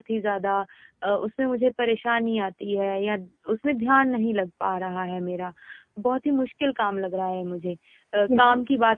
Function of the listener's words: listening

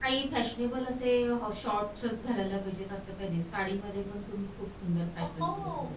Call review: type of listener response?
taking over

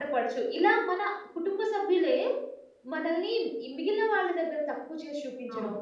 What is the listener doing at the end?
listening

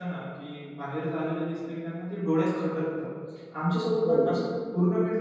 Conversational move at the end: listening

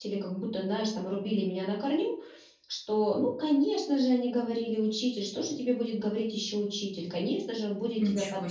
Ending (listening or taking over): listening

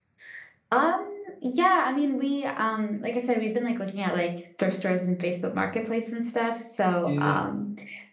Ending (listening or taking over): listening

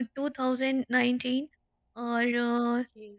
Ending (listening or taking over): listening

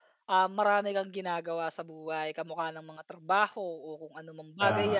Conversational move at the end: listening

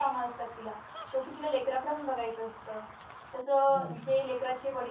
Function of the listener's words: listening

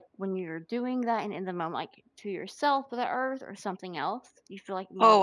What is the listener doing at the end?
taking over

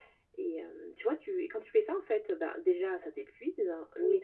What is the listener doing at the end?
listening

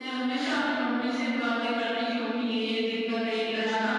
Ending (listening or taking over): taking over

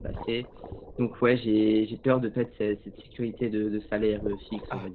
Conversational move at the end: taking over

